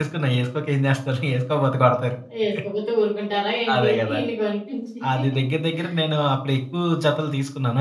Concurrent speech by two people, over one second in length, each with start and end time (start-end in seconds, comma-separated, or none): none